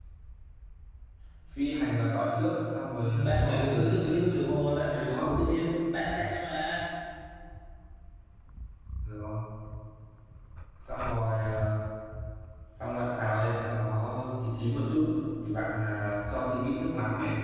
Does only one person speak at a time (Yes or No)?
No